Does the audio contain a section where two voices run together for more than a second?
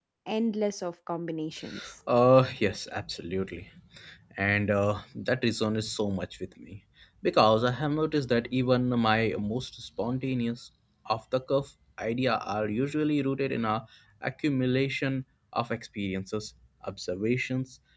No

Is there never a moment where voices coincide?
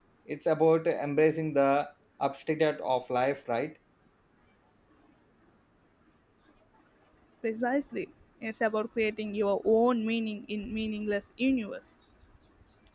Yes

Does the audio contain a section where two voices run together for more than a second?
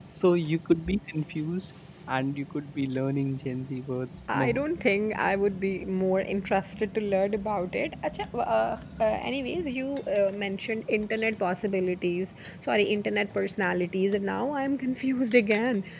No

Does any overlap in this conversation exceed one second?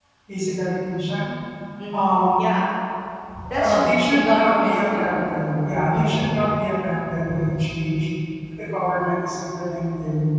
Yes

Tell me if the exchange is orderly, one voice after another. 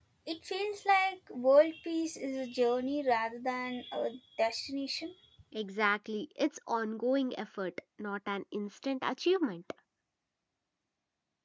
Yes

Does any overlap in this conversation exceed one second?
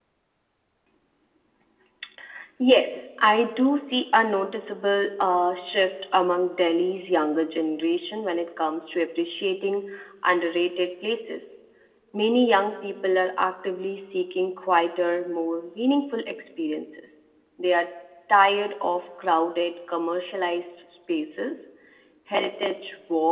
No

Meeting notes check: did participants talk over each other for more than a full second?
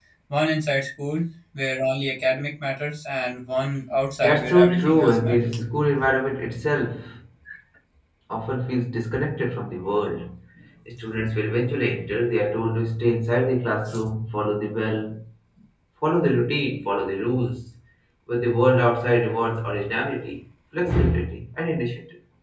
Yes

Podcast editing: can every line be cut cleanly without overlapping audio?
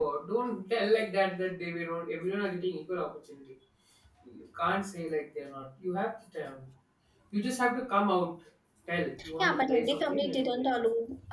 No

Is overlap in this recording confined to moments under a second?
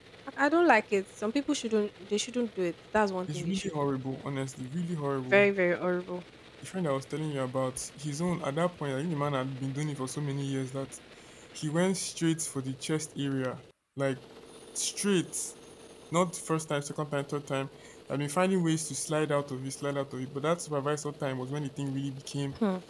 Yes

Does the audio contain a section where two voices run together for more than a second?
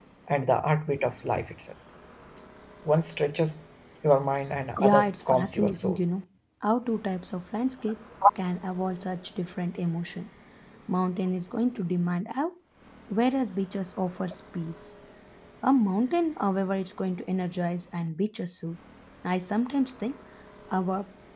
Yes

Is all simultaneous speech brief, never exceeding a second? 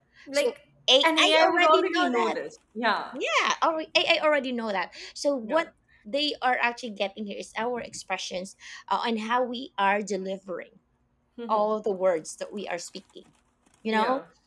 No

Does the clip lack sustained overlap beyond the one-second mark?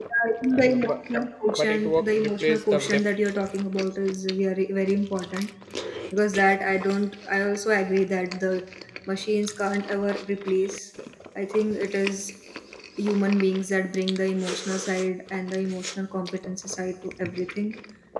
No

